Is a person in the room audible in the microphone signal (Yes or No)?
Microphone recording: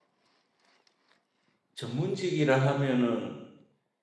Yes